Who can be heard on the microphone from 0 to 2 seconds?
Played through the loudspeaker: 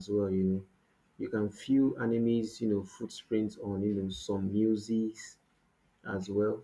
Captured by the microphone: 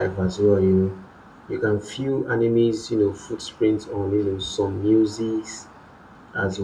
echo only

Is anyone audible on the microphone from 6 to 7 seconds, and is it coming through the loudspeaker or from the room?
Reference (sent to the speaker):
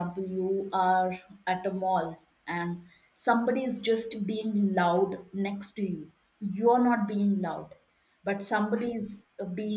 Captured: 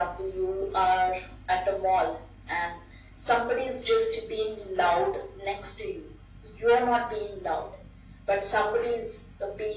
echo only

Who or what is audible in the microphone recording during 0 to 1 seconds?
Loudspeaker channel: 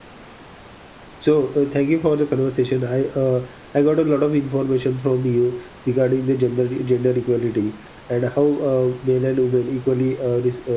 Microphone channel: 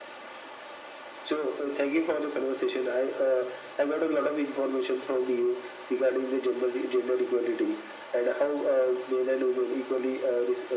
neither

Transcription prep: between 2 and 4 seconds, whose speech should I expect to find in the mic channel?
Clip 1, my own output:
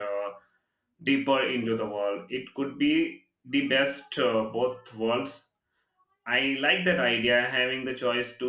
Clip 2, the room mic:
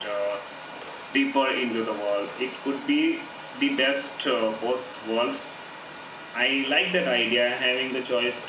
echo only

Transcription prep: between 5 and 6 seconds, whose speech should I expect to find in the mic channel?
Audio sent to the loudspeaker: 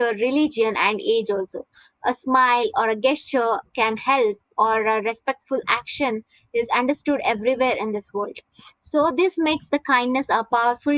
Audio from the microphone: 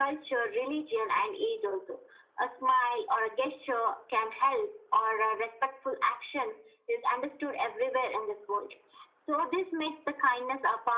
echo only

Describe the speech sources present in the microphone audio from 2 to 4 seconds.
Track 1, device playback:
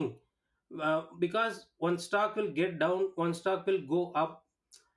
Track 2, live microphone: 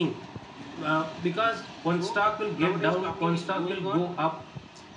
both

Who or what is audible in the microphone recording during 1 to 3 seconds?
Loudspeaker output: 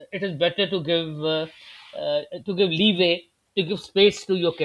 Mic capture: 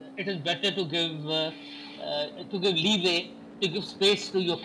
echo only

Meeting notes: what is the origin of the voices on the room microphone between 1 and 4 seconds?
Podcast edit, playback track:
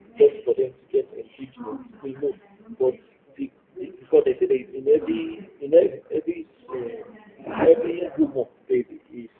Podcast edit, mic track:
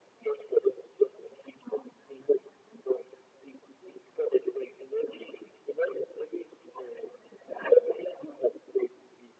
echo only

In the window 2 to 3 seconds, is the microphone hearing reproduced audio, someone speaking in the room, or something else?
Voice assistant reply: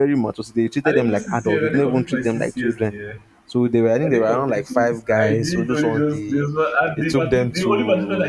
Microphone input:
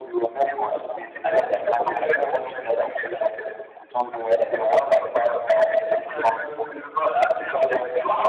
echo only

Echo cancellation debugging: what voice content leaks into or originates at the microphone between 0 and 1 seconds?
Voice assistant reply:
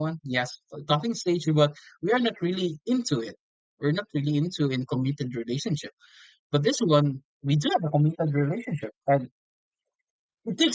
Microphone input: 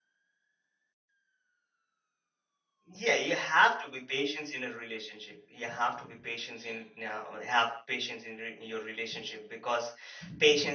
neither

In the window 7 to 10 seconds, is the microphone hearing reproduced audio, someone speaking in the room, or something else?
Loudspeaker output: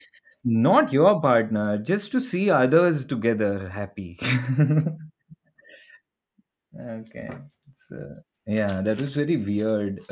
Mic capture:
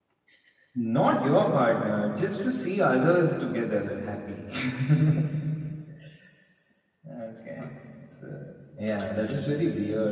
echo only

